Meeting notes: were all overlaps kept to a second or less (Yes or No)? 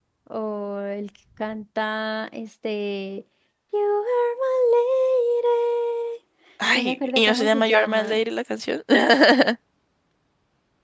No